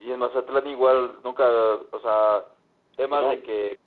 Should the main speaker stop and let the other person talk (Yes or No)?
No